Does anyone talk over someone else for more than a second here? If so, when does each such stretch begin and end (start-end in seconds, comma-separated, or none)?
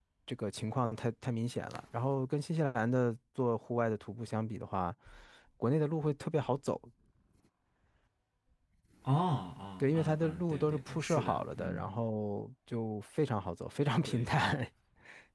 9.8-11.9